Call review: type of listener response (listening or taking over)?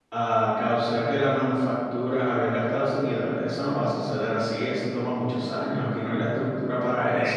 taking over